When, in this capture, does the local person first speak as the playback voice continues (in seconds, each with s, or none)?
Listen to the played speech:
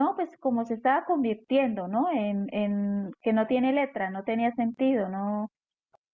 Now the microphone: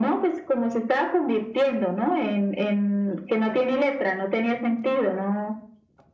none